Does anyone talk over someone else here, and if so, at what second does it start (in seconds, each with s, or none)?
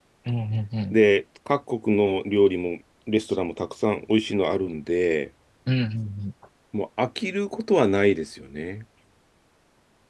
none